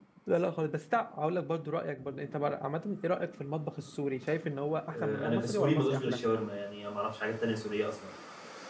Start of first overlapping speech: 5 s

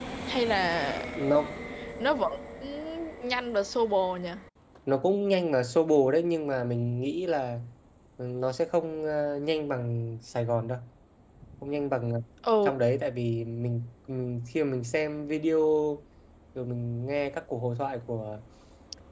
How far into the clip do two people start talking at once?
none

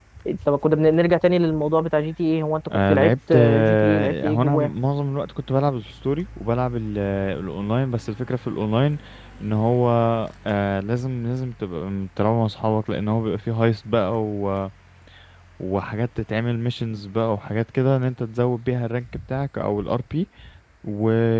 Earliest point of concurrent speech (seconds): 3 s

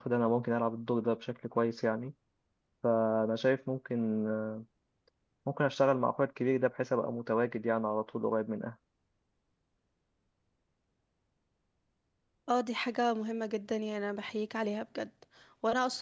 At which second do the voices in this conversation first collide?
none

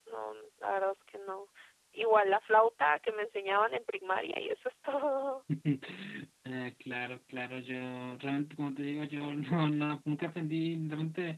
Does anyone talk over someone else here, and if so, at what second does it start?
none

